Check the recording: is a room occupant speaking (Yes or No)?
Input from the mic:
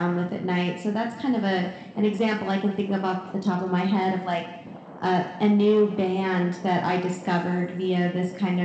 No